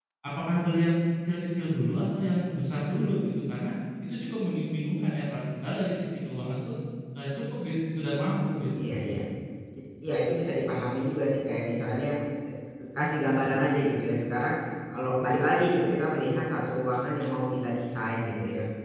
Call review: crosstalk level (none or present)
none